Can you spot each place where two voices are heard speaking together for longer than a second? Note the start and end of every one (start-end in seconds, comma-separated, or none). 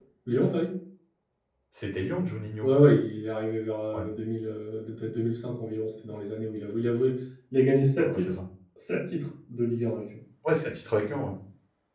none